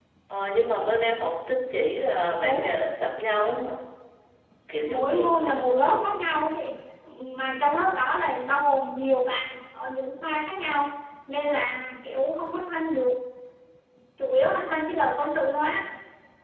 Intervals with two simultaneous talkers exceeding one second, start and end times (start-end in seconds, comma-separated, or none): 4.9-6.1